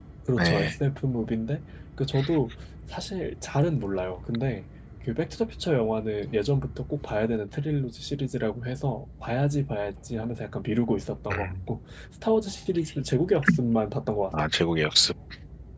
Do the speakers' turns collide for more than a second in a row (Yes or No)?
No